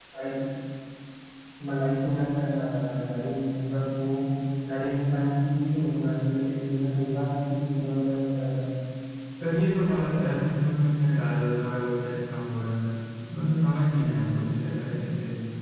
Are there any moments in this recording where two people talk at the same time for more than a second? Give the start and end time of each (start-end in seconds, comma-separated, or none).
none